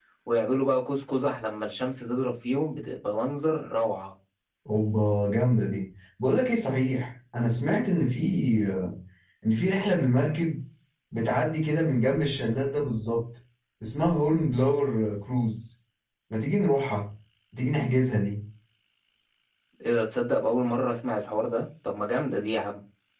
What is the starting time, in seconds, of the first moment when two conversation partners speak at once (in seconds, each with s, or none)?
none